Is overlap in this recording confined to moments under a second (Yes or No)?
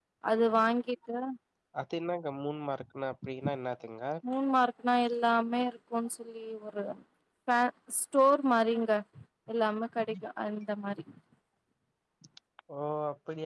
Yes